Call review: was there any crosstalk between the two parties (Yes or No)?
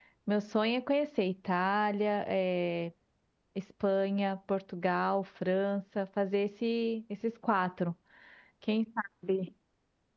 No